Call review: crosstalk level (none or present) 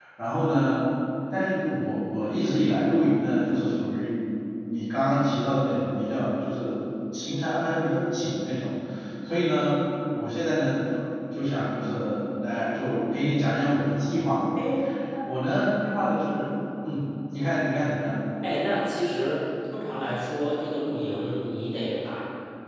none